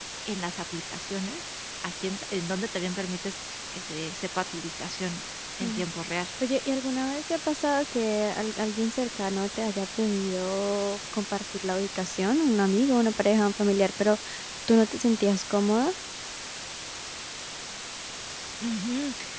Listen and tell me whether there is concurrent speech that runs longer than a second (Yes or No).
No